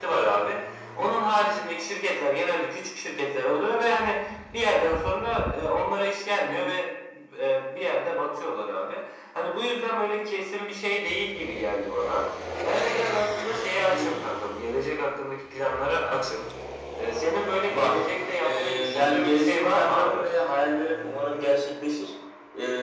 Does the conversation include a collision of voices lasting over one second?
Yes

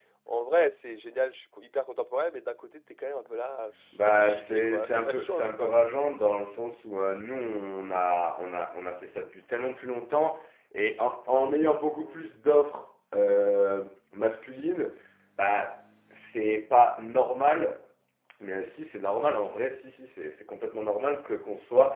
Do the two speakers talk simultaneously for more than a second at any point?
Yes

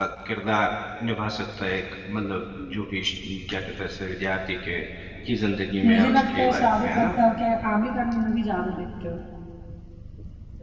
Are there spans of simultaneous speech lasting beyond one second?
Yes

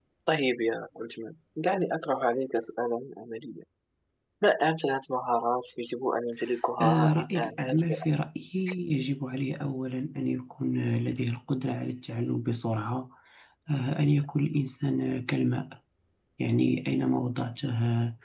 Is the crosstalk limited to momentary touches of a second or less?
No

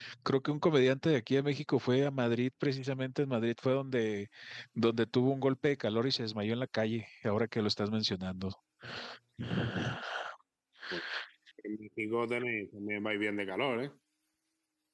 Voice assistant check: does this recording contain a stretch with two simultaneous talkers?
No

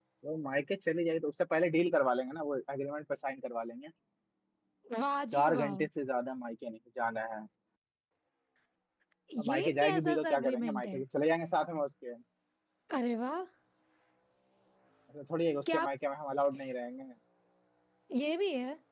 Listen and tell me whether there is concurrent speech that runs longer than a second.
Yes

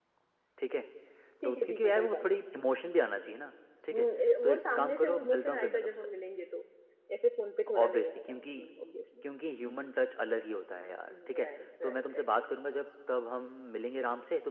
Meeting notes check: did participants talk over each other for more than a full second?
Yes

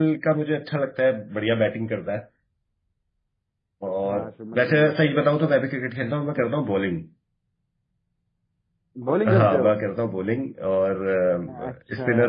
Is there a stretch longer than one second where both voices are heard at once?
Yes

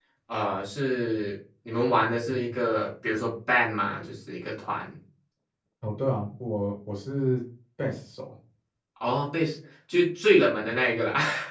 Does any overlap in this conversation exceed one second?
No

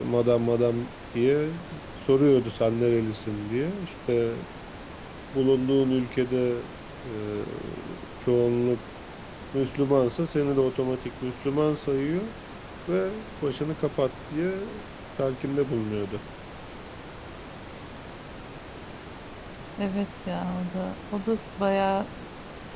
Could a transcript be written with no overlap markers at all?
Yes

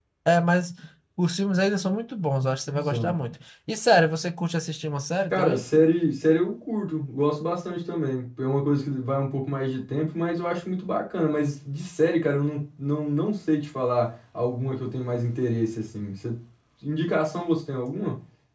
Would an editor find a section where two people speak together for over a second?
No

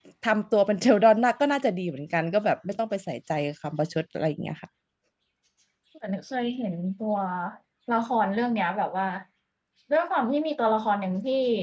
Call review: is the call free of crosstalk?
Yes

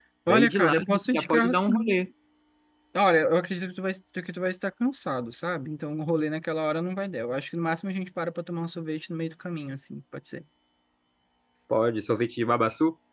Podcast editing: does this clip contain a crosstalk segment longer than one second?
Yes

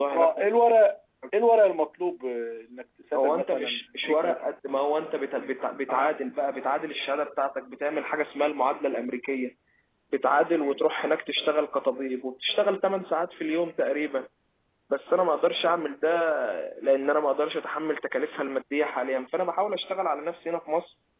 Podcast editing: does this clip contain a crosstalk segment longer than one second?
Yes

